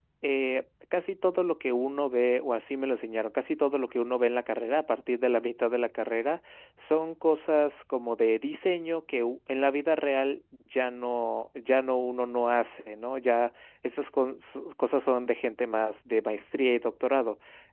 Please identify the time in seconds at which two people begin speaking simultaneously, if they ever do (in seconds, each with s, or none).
none